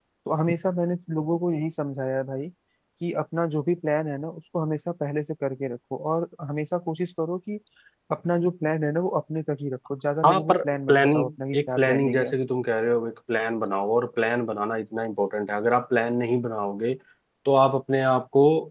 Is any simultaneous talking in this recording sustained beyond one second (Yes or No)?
Yes